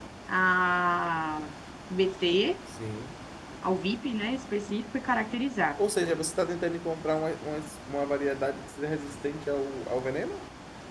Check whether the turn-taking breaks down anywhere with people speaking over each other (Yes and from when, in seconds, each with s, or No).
No